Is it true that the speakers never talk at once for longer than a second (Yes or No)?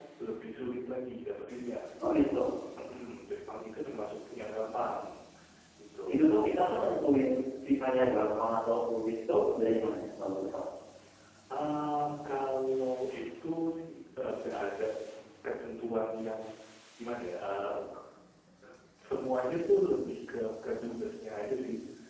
Yes